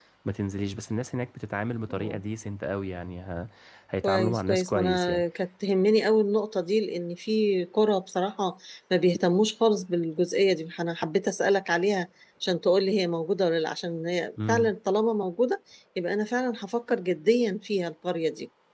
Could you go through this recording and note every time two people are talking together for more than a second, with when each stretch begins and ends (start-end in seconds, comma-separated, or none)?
4.0-5.2